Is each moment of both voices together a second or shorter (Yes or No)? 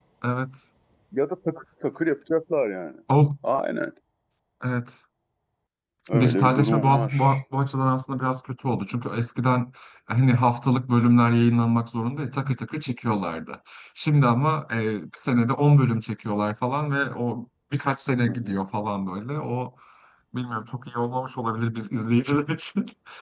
No